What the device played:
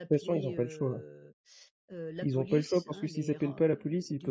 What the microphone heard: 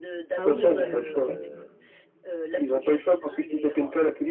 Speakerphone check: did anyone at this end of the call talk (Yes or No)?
Yes